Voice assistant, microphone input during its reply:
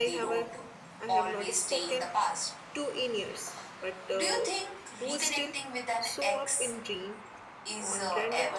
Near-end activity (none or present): present